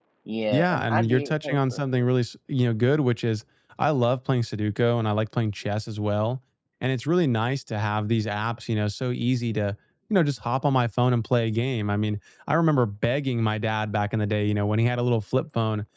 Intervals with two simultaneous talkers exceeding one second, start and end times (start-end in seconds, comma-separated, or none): 0.5-1.8